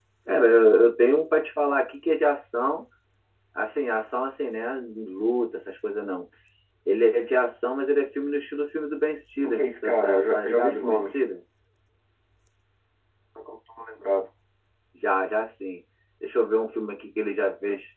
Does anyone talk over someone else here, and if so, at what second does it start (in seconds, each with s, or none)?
9.4 s